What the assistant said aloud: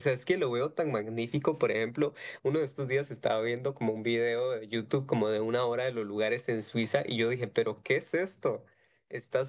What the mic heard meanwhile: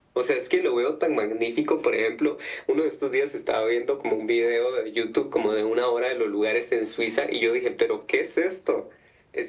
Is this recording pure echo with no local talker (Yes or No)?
Yes